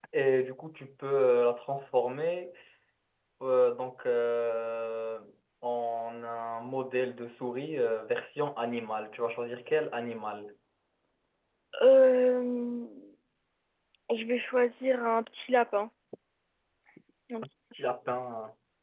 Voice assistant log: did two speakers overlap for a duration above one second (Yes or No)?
No